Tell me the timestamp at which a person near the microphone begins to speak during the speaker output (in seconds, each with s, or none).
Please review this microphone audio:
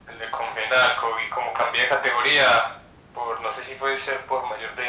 none